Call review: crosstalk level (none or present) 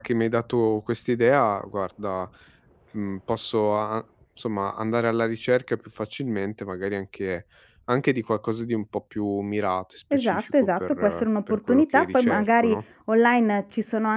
present